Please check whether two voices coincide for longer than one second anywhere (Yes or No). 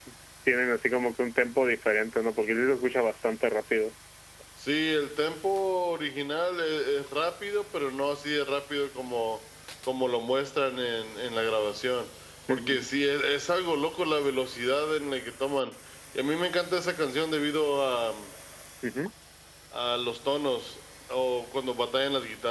No